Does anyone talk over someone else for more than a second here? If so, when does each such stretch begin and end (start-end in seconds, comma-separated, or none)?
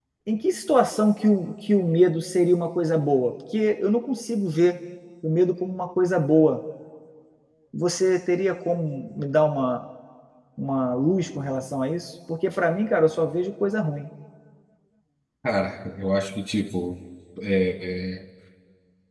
none